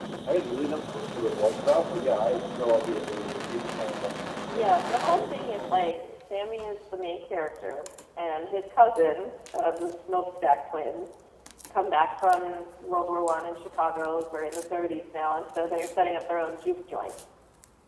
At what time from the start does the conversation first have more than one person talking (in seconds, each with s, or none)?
4.5 s